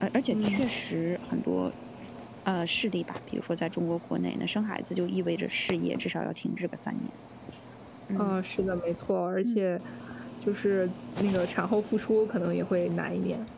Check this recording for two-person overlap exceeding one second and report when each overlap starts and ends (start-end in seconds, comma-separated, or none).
none